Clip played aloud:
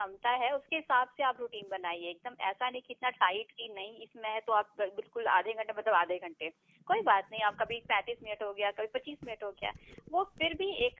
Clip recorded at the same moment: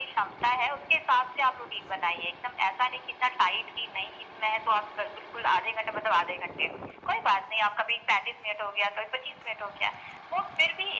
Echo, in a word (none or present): present